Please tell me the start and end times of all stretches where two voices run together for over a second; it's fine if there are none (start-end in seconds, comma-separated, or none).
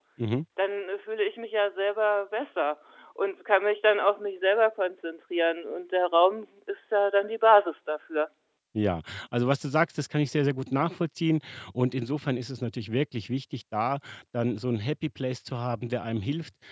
none